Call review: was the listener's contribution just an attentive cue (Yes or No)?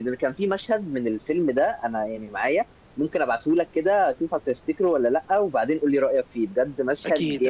No